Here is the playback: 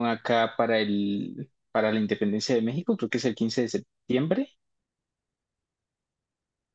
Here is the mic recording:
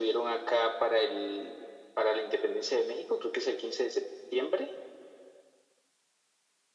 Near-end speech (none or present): none